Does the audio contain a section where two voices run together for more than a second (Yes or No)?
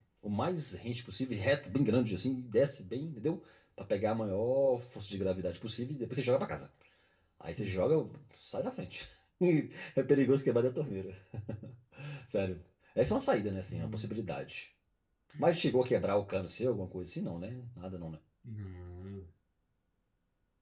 No